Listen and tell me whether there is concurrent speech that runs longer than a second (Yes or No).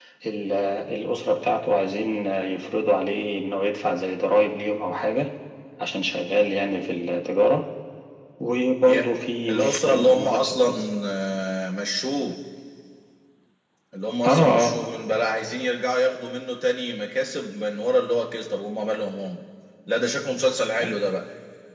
Yes